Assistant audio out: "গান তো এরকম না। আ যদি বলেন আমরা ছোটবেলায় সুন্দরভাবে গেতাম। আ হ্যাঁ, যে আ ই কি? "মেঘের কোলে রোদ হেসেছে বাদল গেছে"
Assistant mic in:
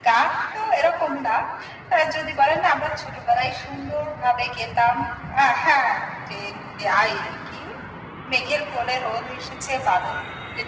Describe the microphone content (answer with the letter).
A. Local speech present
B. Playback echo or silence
B